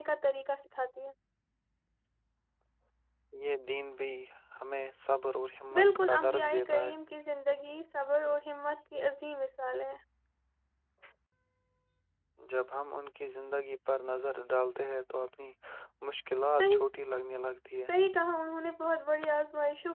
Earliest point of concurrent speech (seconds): 5.7 s

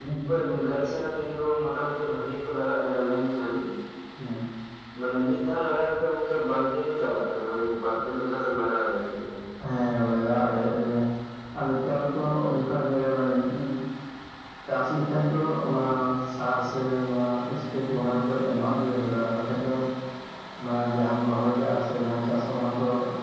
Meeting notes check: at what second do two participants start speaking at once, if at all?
none

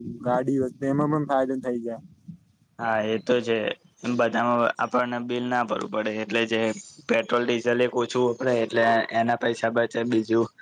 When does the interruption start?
none

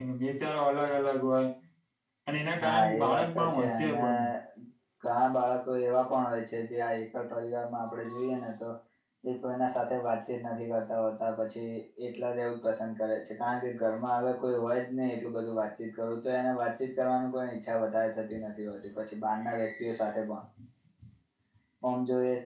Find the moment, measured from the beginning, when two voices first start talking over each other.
2.6 s

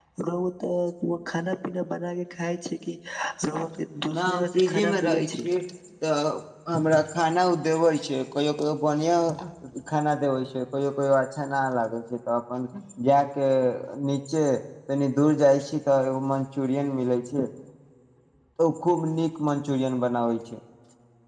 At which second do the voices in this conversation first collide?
4.2 s

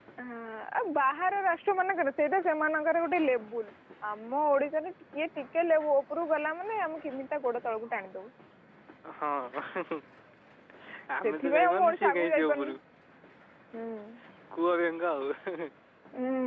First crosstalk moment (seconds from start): 11.2 s

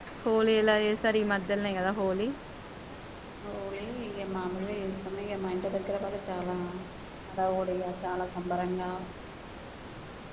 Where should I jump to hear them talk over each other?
none

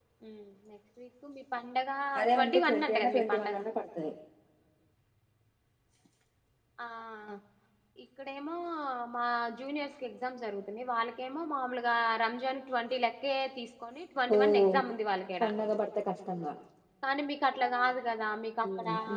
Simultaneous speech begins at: 2.4 s

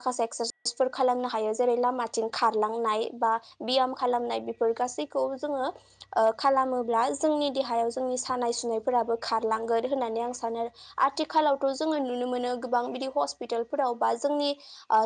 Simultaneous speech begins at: none

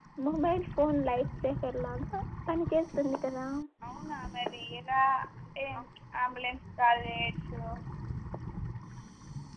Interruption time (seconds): none

